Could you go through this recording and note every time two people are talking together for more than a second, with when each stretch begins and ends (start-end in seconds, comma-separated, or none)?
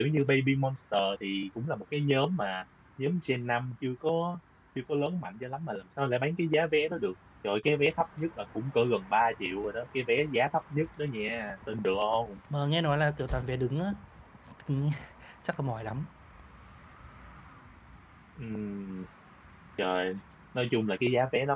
none